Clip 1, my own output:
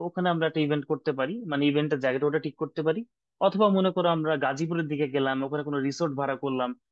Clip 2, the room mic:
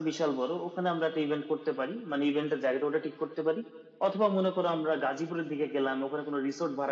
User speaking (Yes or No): No